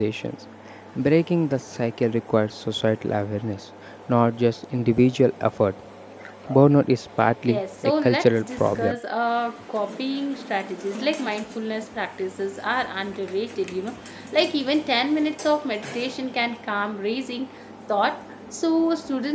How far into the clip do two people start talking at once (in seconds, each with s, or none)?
7.5 s